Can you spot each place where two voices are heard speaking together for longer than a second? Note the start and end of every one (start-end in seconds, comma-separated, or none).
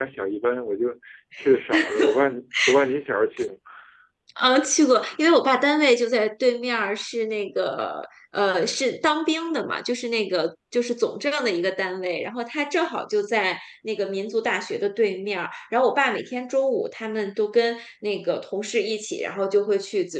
none